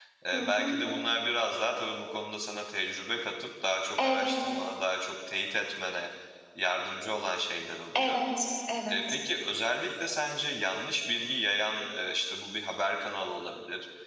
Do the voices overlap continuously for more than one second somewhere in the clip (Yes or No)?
No